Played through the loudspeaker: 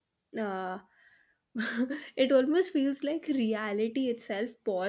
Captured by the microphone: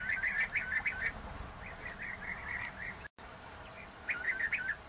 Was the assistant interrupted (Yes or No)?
No